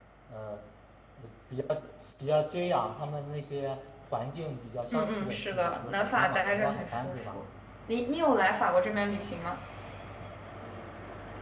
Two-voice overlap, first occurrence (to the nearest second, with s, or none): 5 s